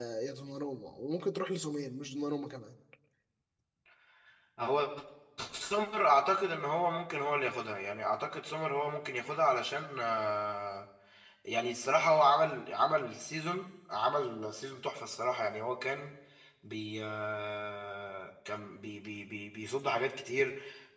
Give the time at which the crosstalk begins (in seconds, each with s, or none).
none